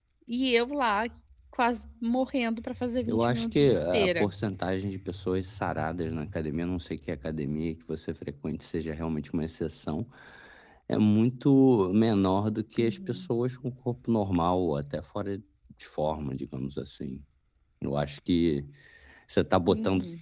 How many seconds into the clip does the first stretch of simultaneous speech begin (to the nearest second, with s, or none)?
3 s